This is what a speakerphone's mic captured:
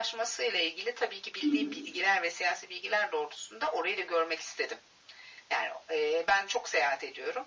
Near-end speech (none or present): present